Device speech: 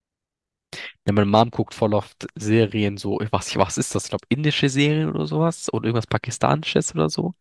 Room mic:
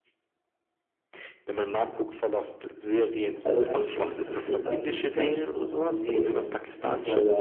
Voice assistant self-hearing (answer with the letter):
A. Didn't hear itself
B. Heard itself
B